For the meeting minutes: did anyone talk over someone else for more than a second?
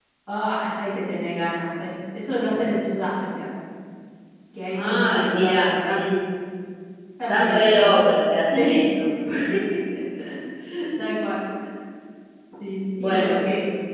Yes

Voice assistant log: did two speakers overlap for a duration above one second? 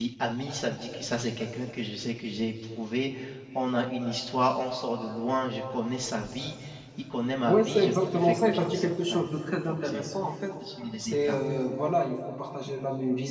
Yes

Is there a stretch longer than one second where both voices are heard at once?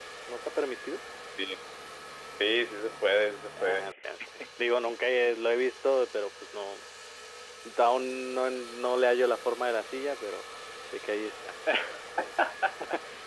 No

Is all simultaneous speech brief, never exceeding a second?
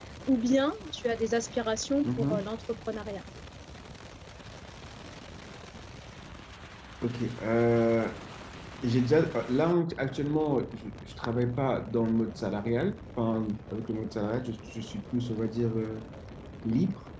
Yes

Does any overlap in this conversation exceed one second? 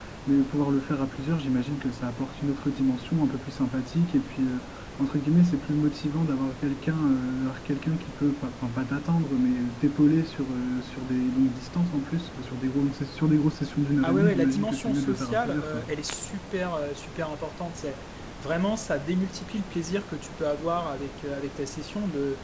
Yes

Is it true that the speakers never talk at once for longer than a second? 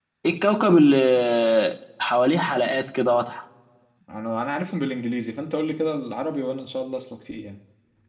Yes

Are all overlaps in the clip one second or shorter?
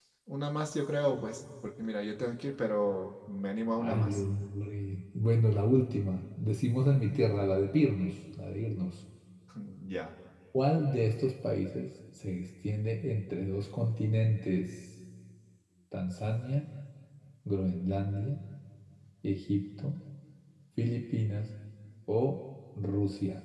Yes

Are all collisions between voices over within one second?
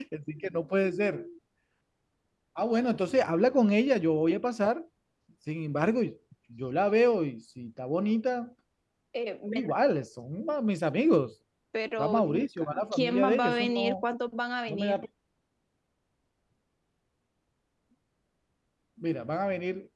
No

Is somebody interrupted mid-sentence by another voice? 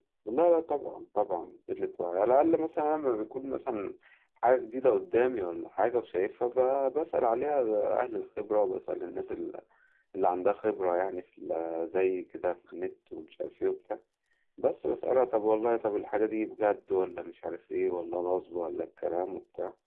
No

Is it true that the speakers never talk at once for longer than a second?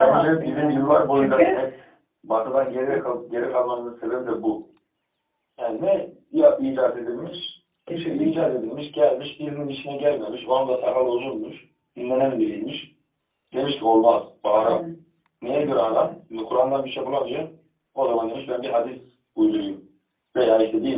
No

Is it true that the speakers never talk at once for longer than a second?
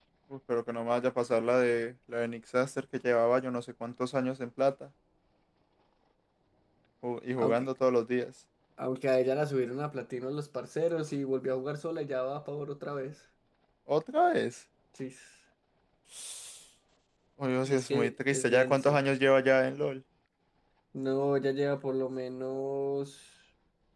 No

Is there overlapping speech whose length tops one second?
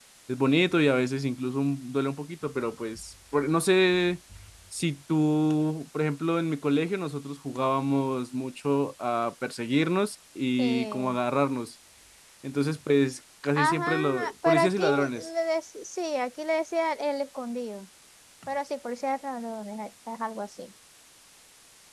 Yes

